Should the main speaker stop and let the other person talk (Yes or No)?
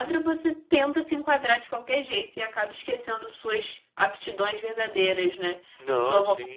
No